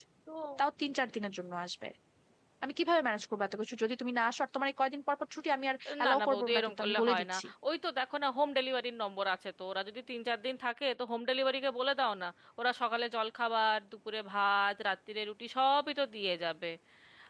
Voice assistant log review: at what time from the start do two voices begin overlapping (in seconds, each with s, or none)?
5.8 s